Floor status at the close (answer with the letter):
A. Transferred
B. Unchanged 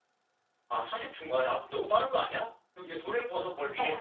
A